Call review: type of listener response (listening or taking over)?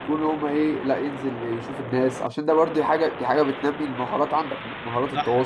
taking over